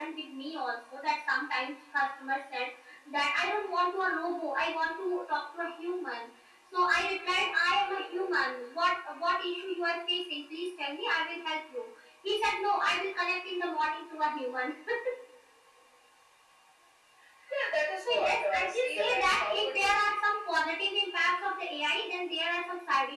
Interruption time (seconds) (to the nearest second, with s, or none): 18 s